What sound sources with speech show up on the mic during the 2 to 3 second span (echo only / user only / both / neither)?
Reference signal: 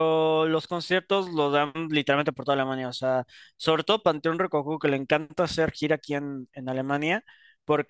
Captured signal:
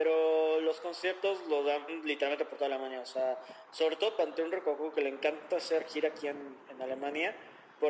echo only